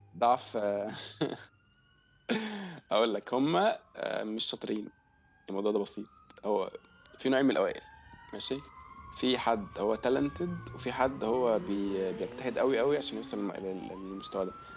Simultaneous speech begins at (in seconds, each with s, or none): none